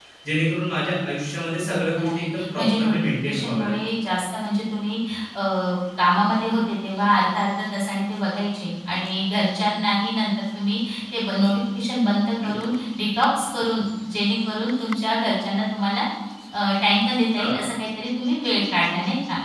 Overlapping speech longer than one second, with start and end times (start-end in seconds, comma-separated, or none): 1.6-3.7